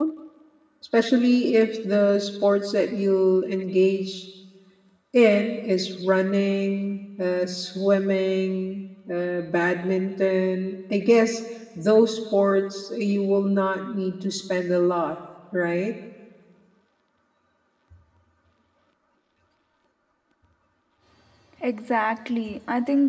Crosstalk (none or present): none